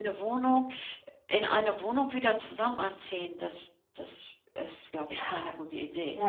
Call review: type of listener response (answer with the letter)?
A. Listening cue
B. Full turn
B